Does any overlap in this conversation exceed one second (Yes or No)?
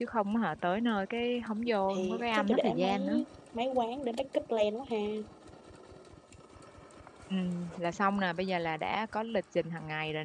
Yes